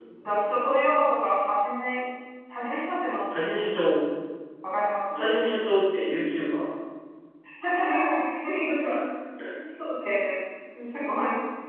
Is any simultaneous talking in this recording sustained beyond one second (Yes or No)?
No